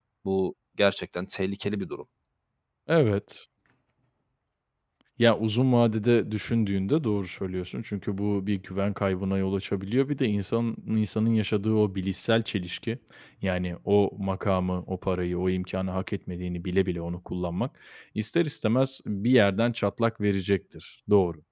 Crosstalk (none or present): none